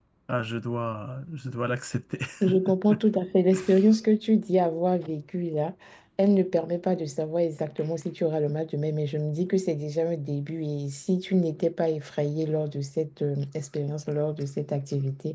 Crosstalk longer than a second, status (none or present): none